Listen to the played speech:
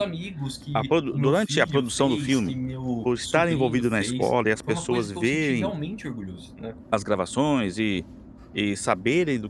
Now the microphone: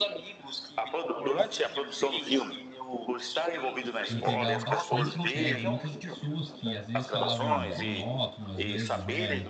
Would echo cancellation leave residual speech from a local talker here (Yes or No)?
Yes